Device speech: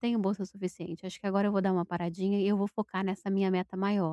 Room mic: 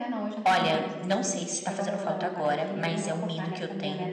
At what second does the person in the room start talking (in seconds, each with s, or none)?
0.4 s